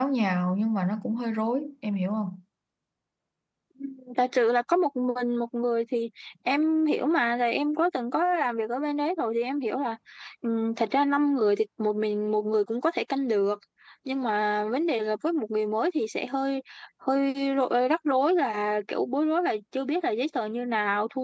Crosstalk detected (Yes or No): No